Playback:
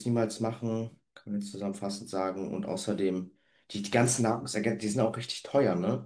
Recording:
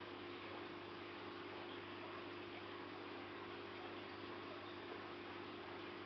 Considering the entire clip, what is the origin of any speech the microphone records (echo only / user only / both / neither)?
neither